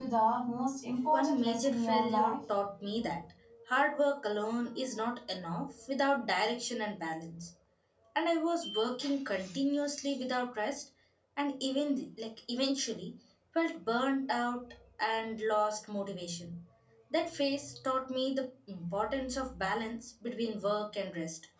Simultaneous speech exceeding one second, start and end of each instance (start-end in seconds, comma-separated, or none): 1.1-2.4